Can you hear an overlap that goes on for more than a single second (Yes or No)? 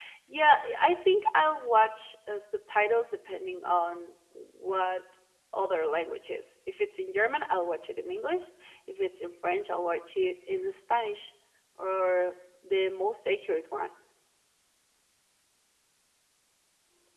No